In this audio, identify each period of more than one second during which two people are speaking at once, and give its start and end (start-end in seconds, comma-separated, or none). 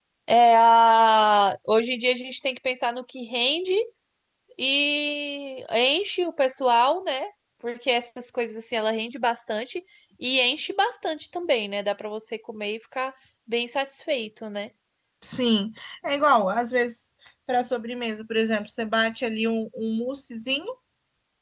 none